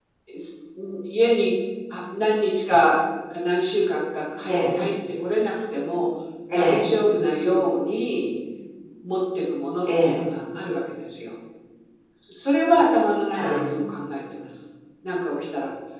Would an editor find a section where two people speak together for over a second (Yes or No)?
No